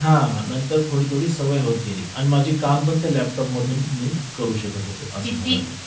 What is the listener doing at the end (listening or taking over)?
taking over